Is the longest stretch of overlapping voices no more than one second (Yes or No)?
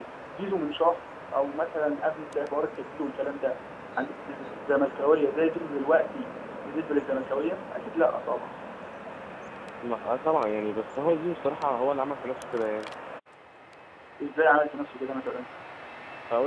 Yes